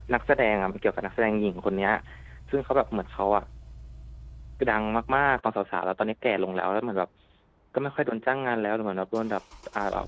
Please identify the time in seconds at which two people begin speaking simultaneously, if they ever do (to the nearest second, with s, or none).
none